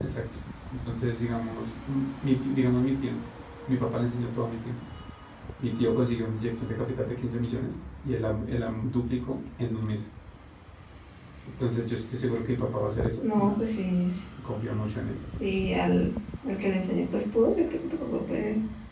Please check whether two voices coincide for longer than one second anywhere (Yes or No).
No